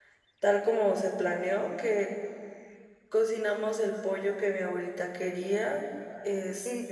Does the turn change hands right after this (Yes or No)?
Yes